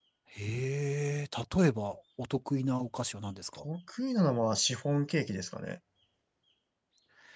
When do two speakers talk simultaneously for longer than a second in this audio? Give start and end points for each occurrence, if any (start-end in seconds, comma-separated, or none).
none